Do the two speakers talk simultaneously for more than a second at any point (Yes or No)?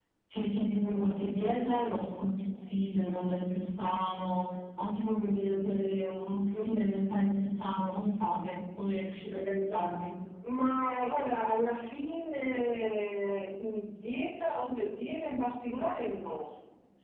No